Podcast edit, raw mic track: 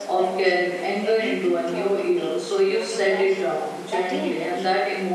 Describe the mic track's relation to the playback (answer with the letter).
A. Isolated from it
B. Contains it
B